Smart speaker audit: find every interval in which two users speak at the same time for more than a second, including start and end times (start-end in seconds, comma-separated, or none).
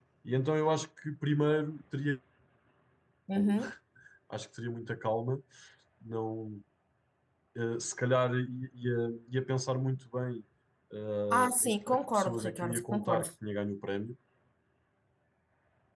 11.3-13.3